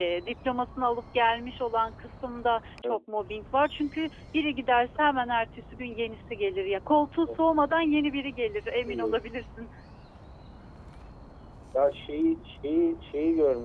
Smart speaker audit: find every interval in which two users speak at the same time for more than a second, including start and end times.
none

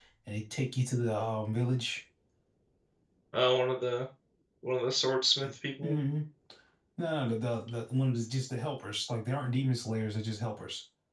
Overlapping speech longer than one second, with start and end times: none

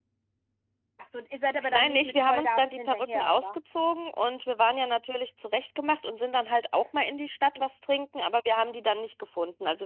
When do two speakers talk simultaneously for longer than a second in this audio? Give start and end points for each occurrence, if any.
1.7-3.6

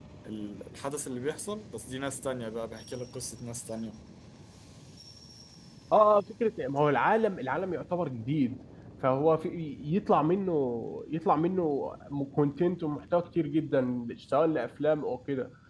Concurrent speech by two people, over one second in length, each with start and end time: none

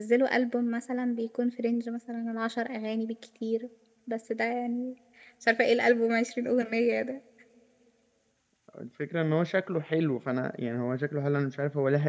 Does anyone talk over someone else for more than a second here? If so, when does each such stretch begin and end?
none

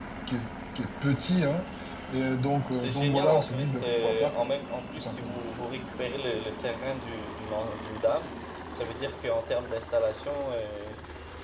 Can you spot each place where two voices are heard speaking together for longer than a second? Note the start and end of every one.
2.8-4.5

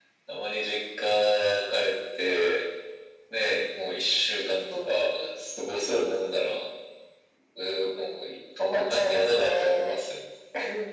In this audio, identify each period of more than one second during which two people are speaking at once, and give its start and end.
8.6-10.0

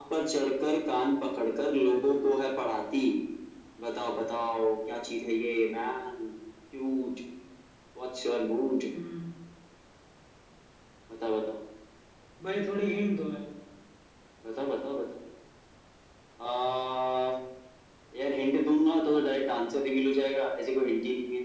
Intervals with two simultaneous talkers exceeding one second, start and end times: none

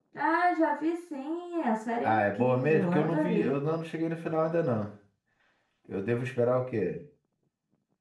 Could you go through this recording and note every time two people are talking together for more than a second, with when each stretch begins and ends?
2.0-3.5

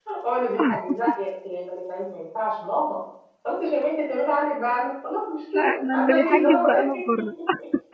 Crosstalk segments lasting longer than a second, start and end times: 5.5-6.9

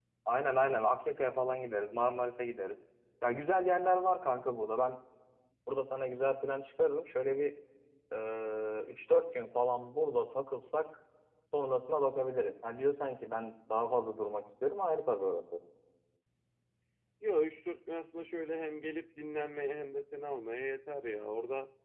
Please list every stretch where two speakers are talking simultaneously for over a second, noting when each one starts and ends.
none

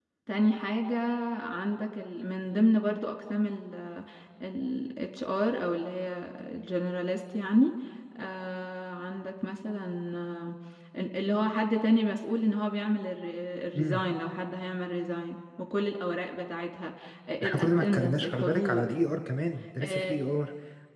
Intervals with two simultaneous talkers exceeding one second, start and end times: 17.4-18.9

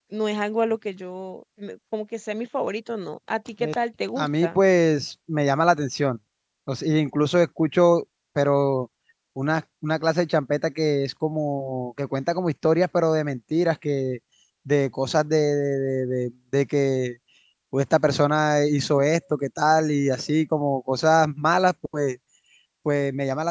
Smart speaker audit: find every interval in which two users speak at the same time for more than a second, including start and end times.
none

